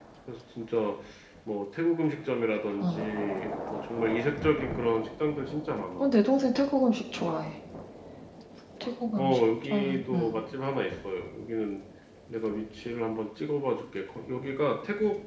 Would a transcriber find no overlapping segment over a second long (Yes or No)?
No